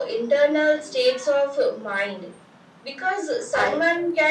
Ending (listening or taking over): listening